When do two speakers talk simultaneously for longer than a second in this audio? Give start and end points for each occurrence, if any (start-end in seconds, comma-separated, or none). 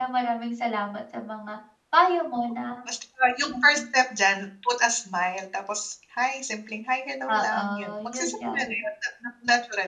7.3-8.6